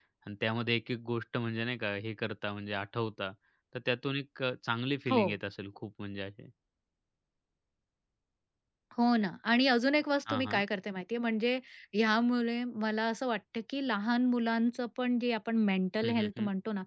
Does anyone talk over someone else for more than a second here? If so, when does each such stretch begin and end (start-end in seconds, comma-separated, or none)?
none